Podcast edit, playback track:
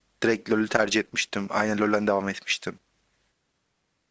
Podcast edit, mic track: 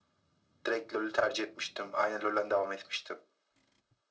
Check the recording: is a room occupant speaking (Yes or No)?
No